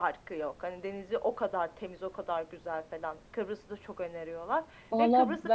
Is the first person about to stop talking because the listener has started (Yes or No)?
Yes